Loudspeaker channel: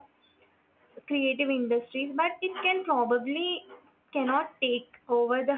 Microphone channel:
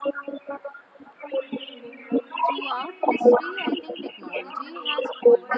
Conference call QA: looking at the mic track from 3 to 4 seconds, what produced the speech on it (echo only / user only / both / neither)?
both